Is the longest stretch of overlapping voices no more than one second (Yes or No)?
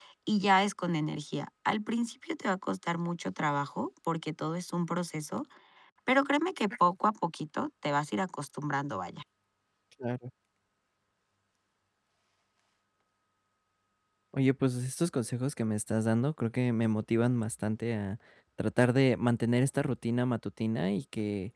Yes